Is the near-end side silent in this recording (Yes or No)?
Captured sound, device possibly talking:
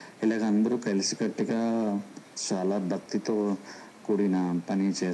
Yes